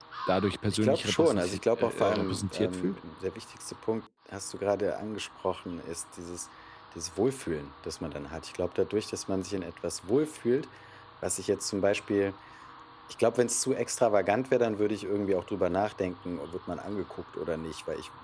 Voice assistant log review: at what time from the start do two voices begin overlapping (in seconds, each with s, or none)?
0.7 s